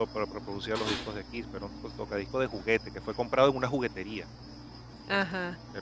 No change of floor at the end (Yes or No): Yes